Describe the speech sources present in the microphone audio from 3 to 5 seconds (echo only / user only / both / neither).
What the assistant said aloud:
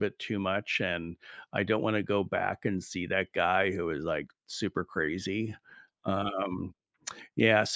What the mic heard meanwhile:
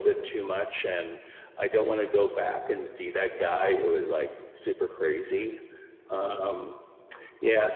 echo only